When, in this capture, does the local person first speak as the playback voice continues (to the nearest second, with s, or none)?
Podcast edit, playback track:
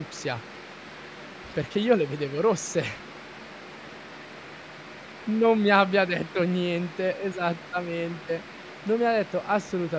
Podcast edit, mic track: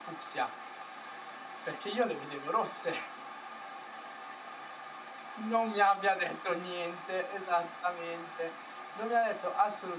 none